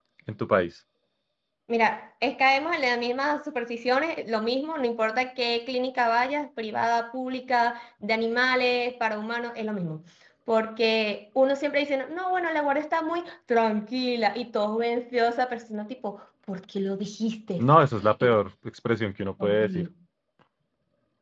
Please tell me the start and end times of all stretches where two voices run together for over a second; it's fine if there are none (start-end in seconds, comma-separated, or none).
none